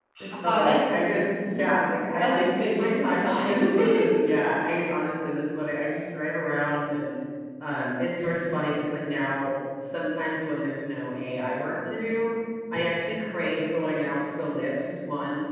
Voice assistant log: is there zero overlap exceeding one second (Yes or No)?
No